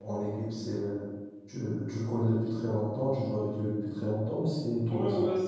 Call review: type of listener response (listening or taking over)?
taking over